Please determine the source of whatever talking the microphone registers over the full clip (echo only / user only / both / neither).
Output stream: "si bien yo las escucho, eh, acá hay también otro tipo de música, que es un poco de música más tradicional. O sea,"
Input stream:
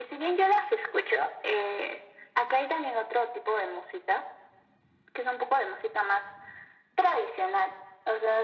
echo only